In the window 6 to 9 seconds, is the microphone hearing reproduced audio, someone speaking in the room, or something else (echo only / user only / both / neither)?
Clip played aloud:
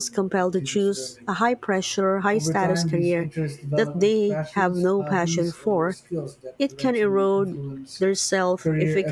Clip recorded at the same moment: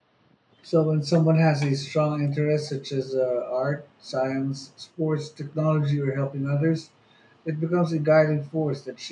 user only